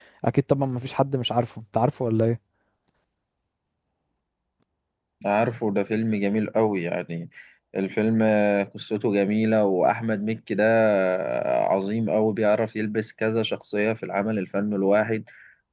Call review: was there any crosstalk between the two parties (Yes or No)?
No